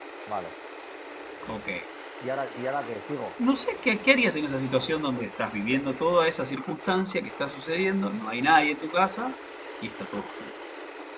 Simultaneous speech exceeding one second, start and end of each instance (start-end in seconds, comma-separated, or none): none